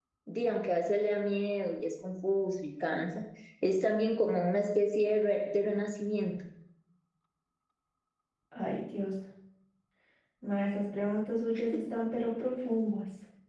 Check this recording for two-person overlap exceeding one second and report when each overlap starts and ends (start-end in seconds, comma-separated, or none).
none